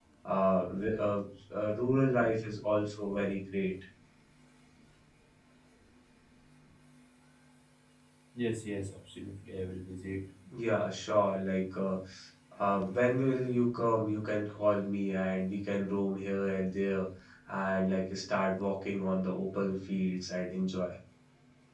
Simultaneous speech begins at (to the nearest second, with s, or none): none